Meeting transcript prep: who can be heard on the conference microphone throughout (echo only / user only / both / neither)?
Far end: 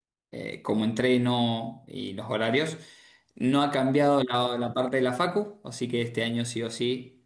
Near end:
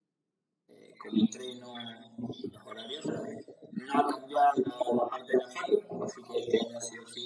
echo only